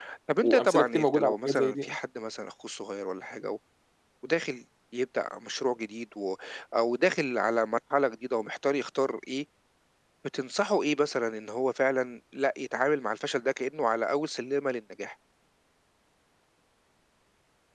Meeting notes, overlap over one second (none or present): present